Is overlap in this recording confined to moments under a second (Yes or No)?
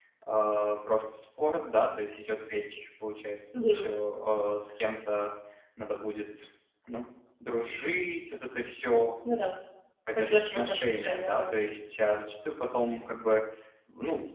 No